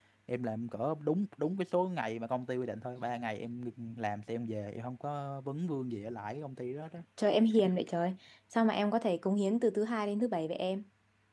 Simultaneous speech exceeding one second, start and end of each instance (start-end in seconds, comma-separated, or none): none